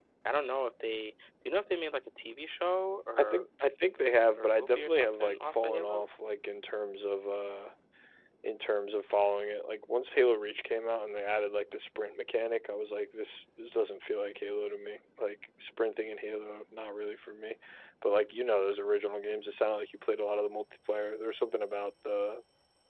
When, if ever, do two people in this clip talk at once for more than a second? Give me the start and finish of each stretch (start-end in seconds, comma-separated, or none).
4.4-6.0